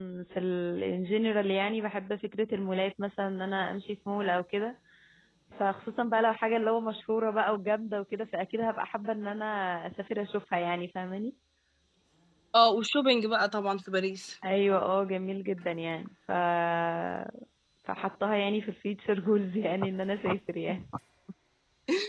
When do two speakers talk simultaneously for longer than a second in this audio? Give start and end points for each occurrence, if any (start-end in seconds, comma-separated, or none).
none